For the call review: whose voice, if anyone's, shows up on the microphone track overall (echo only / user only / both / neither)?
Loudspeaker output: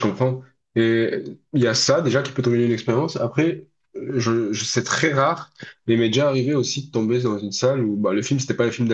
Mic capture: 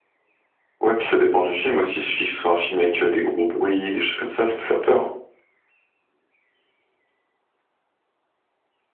user only